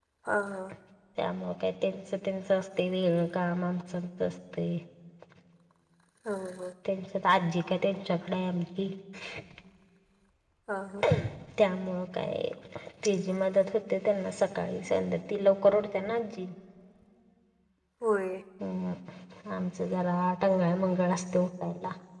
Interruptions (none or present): none